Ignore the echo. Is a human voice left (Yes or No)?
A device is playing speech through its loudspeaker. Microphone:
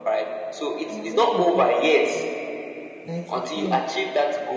Yes